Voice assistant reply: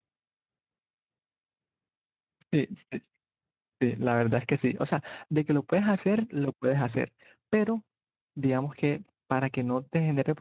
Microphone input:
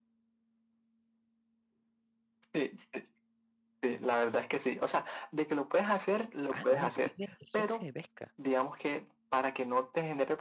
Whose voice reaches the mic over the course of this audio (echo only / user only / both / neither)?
both